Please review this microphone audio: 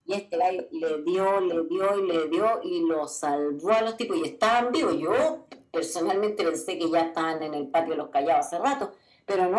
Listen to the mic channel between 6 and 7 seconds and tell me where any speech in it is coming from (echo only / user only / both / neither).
echo only